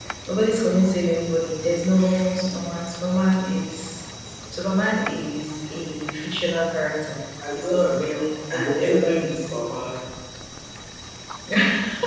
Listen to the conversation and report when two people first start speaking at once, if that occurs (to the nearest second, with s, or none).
7 s